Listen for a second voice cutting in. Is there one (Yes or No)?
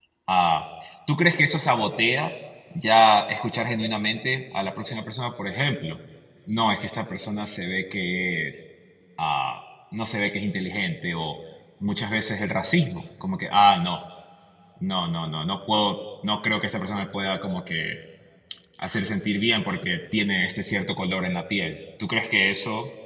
No